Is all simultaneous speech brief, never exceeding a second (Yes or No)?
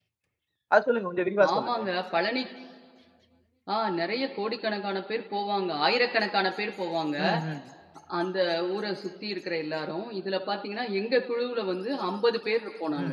Yes